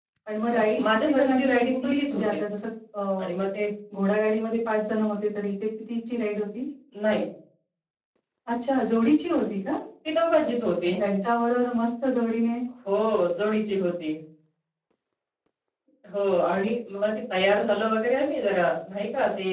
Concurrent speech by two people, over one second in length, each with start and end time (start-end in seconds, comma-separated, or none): 0.5-2.2